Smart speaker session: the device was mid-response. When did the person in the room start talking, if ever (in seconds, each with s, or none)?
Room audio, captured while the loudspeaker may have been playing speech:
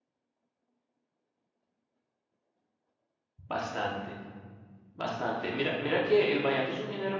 3.5 s